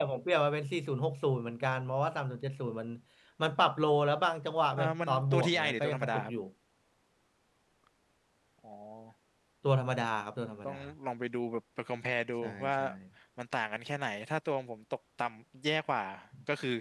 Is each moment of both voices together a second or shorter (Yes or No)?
No